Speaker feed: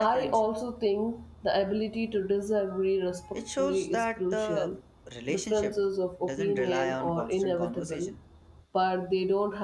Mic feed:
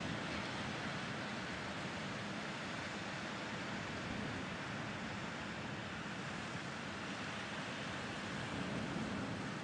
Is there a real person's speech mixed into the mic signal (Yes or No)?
No